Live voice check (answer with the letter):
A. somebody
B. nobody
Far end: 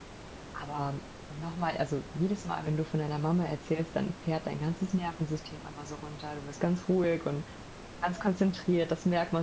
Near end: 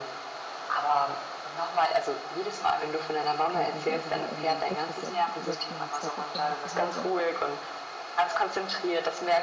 A